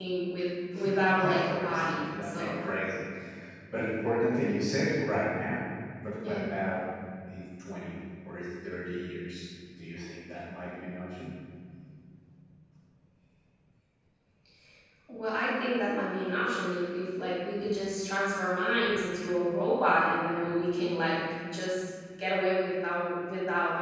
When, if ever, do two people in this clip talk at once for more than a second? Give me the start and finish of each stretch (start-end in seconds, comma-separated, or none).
1.2-2.6